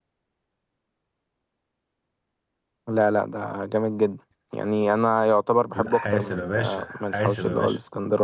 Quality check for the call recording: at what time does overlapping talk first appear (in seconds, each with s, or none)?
5.8 s